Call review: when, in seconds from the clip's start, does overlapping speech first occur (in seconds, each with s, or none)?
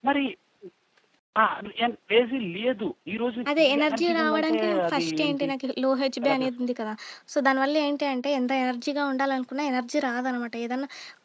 3.6 s